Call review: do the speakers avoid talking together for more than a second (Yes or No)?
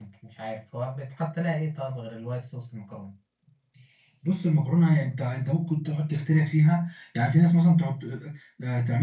Yes